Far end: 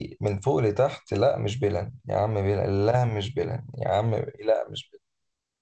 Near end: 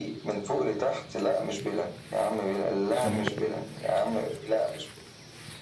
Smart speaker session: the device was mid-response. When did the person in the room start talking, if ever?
2.9 s

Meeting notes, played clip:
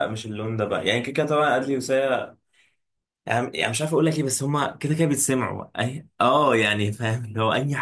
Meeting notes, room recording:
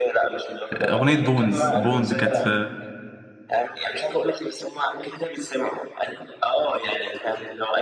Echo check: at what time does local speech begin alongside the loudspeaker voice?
0.7 s

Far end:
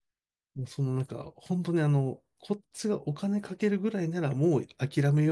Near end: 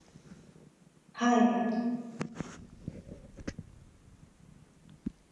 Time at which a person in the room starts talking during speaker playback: 1.1 s

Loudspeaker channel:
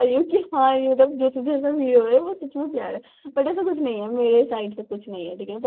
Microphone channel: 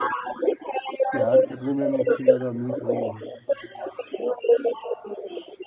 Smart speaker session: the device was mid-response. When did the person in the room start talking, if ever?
1.1 s

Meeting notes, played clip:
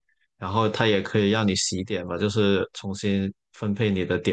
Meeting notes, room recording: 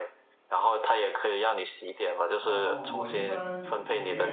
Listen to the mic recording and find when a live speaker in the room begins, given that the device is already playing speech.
2.4 s

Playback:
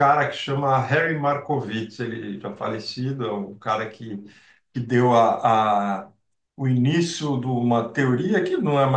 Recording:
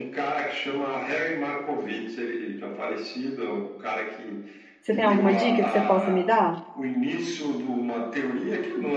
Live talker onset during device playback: 4.8 s

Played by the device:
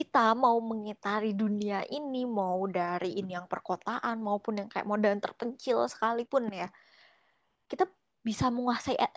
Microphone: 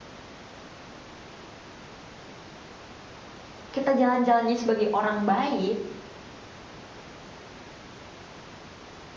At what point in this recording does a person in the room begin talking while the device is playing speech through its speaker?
3.7 s

